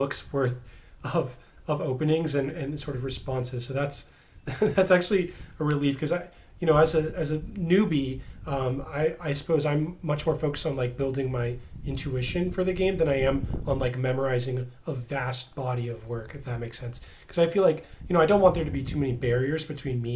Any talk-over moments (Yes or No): No